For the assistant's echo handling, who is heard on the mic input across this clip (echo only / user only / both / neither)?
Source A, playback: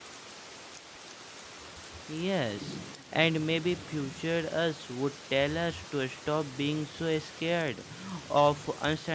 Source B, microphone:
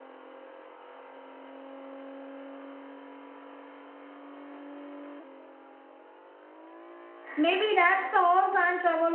user only